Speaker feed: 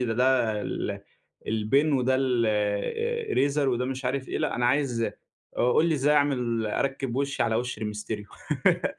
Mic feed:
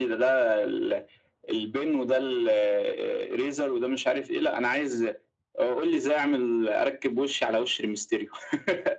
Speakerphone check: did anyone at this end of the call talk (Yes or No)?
No